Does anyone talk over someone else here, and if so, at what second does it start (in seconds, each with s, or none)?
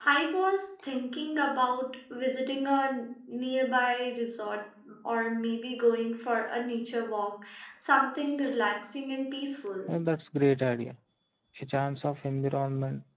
none